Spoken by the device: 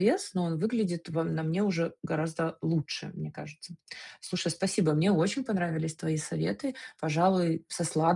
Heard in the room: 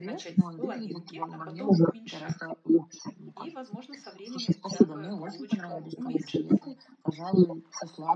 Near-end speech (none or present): present